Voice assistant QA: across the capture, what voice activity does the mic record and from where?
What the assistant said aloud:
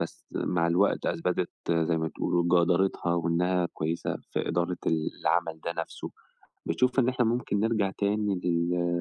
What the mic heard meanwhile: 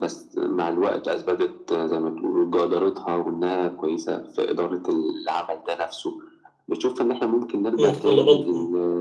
both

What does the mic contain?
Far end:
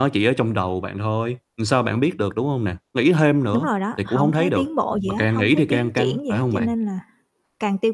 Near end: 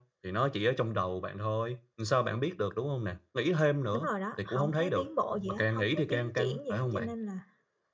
echo only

